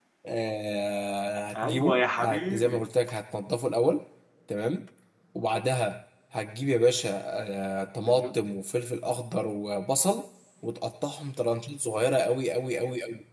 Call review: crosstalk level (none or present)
present